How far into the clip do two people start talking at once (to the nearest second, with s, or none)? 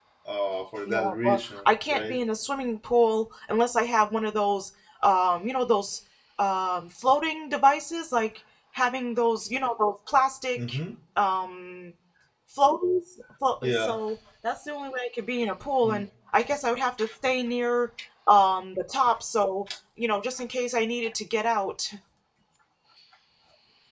1 s